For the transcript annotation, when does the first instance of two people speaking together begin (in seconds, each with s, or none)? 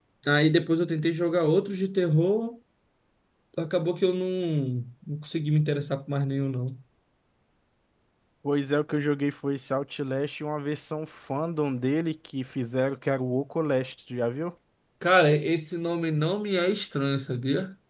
none